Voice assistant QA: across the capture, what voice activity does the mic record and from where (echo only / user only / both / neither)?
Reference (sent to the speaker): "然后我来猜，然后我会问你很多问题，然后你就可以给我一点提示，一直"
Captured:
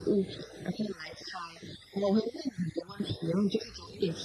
echo only